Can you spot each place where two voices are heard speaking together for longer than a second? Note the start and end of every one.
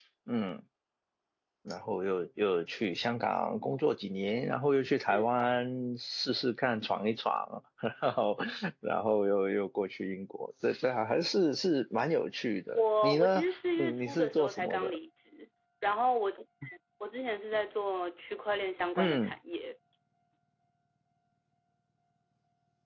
12.7-15.0

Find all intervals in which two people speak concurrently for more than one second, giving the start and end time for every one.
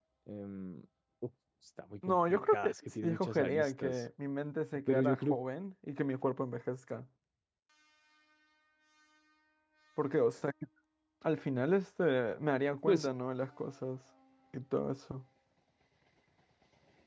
2.1-4.0

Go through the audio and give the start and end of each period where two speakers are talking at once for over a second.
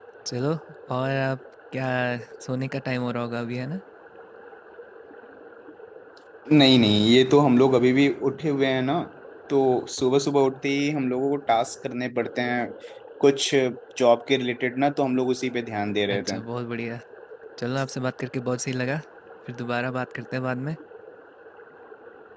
none

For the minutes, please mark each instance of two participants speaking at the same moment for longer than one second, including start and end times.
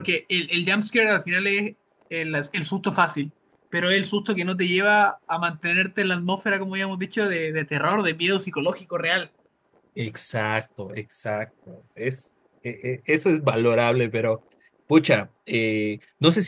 none

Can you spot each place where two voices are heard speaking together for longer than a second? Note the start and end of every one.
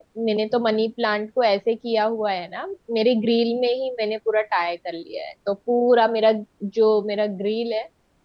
none

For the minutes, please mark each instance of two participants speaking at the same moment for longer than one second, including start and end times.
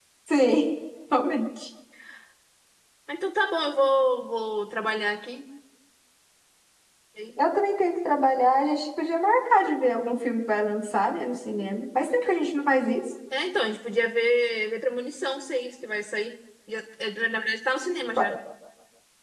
none

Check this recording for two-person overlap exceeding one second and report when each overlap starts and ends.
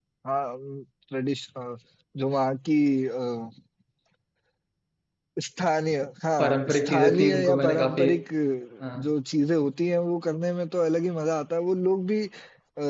6.4-8.1

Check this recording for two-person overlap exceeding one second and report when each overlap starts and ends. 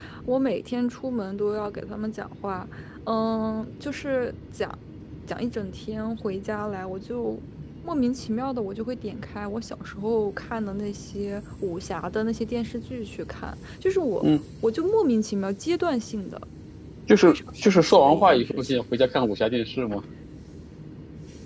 17.3-18.8

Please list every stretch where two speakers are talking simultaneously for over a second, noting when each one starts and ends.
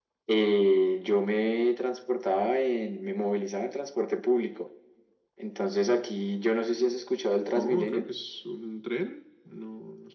none

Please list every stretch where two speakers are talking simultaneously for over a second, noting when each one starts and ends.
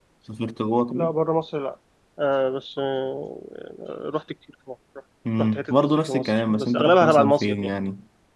5.4-7.7

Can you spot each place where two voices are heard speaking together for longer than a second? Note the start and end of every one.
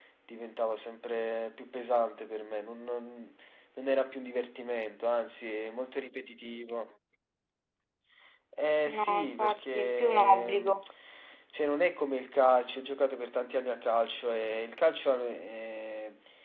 8.9-10.7

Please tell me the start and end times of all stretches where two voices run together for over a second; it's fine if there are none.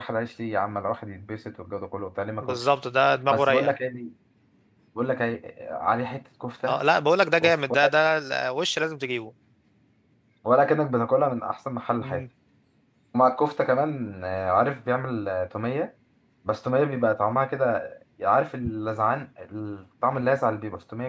none

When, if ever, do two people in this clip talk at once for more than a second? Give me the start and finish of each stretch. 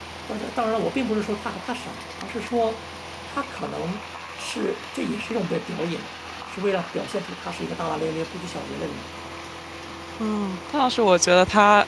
none

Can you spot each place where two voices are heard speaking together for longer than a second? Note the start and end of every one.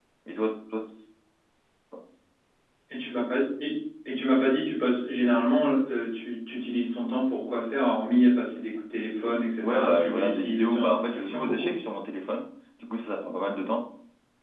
9.6-11.8

